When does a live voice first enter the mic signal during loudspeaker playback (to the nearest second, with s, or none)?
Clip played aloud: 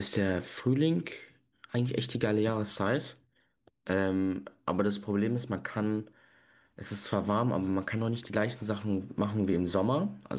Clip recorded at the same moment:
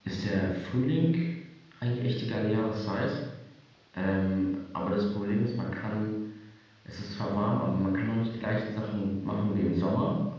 none